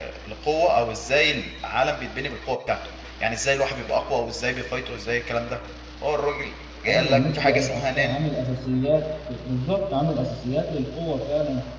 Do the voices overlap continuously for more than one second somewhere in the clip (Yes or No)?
Yes